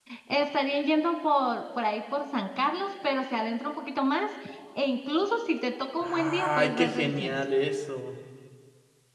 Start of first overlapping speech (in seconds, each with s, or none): 6.0 s